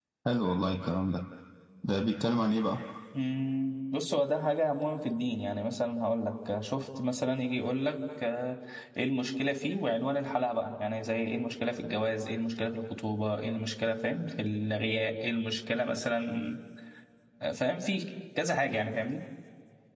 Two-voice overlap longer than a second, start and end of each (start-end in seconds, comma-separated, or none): none